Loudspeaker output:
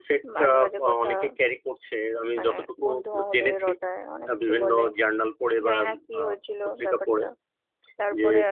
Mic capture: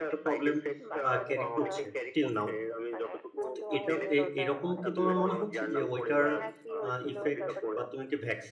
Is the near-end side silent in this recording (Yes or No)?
No